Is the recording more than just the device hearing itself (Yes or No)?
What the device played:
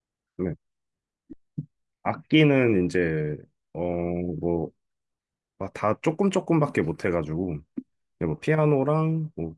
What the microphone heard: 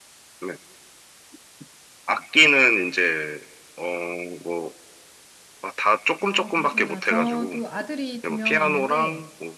Yes